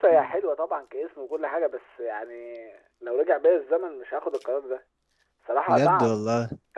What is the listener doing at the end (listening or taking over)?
listening